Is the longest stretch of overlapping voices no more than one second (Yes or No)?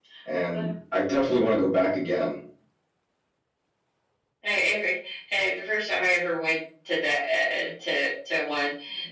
Yes